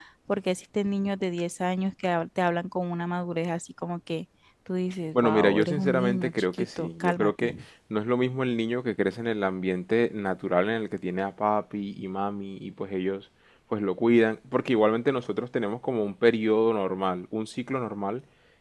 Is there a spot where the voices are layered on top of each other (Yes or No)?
Yes